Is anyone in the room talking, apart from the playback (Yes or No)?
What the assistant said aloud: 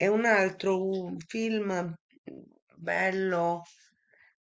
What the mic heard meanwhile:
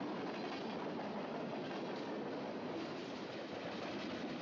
No